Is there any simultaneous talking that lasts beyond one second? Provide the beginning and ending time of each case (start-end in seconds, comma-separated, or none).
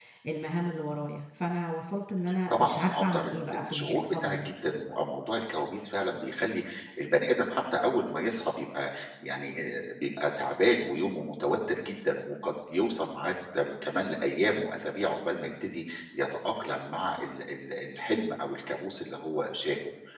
2.5-4.5